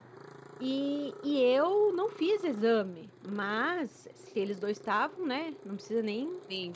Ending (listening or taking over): listening